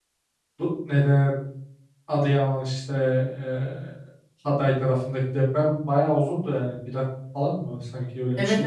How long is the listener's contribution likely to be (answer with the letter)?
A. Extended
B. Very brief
A